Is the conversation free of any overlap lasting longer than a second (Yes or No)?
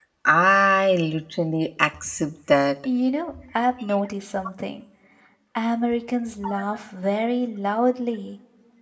Yes